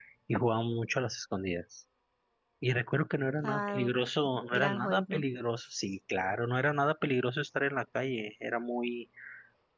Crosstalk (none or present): present